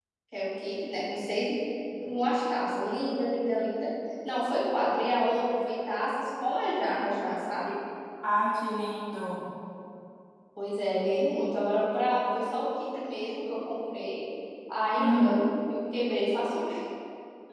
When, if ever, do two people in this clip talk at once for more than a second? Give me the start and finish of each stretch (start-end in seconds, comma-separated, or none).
none